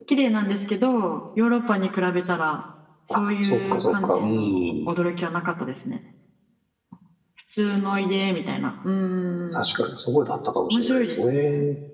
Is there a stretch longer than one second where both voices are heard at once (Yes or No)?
Yes